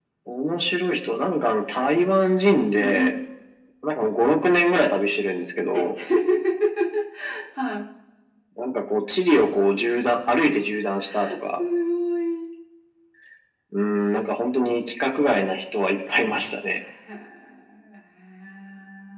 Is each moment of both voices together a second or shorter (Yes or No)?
Yes